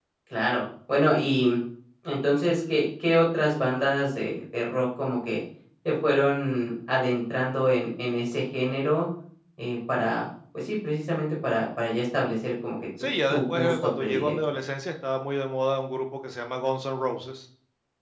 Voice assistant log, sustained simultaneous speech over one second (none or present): present